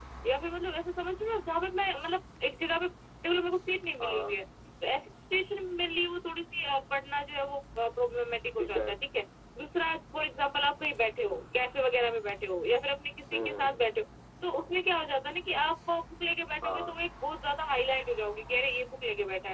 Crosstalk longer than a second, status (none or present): none